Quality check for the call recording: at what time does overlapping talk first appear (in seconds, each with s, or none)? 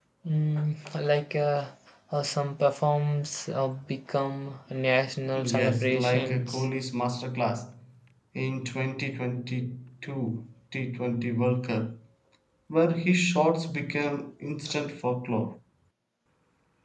5.2 s